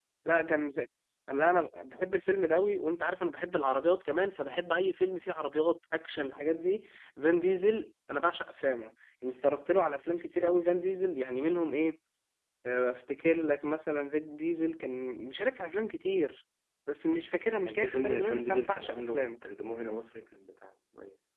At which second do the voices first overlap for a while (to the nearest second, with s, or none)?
18 s